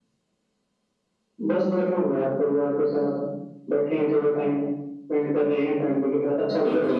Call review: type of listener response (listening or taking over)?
taking over